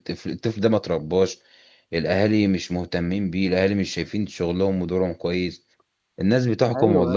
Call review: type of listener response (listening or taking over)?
listening